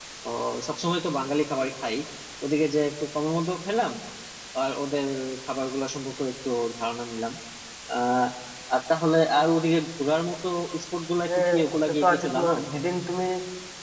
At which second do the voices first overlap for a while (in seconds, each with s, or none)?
11.2 s